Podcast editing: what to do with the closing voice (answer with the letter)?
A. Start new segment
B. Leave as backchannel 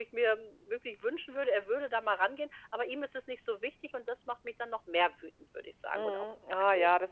A